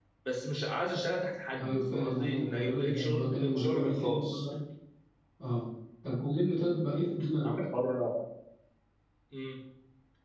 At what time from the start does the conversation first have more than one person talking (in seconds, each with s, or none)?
1.6 s